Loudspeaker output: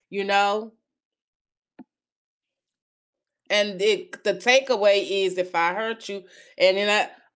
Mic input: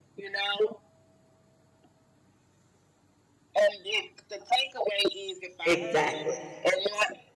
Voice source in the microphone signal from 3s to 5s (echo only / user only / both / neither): echo only